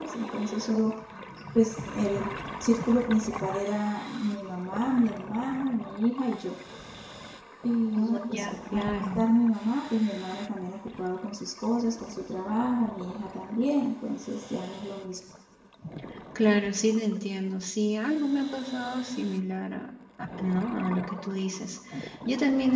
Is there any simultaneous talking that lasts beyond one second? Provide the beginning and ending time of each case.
8.0-9.2

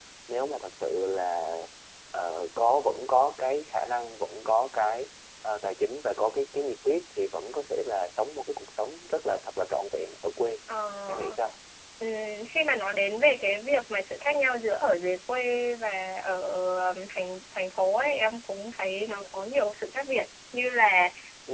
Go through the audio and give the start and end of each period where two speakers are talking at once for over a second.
none

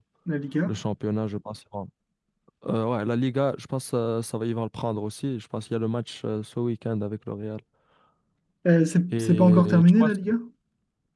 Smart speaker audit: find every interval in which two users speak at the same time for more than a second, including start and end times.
9.1-10.3

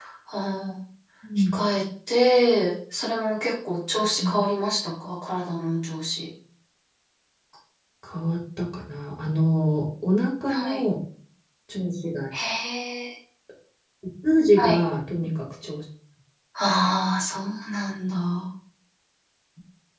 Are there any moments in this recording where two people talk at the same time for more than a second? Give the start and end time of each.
none

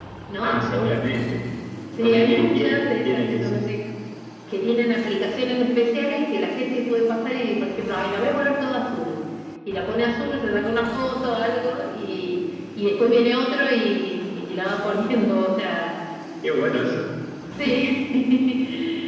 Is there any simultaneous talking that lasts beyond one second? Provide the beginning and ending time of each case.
2.0-3.7

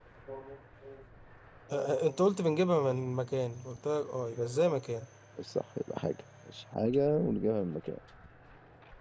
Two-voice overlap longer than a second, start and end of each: none

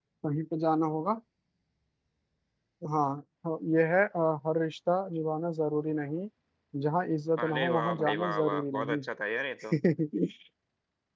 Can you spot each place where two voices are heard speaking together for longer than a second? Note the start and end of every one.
7.4-9.0

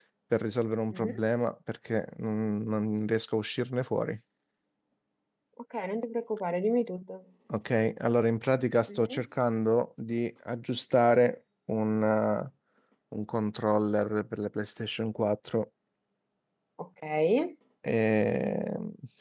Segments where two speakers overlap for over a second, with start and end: none

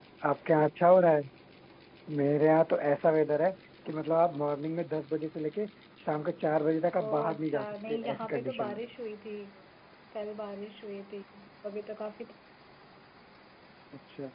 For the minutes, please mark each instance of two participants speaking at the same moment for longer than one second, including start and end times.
7.0-8.8

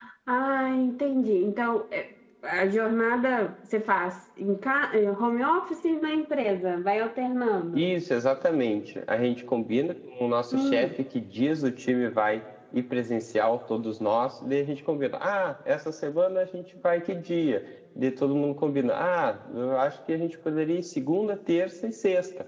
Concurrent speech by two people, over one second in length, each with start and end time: none

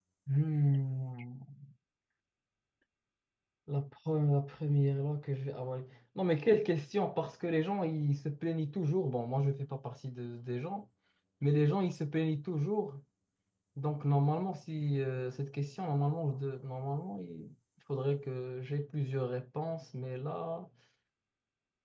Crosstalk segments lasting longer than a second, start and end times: none

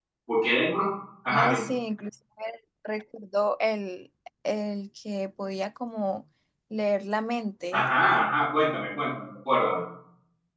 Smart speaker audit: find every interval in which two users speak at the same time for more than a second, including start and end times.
none

